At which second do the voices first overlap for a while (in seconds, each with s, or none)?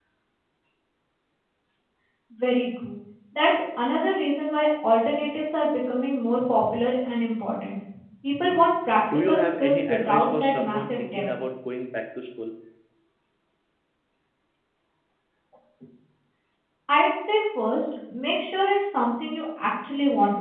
9.1 s